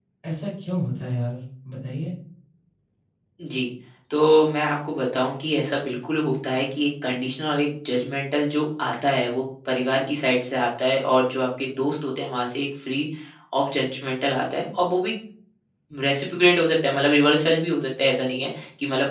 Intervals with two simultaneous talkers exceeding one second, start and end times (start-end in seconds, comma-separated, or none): none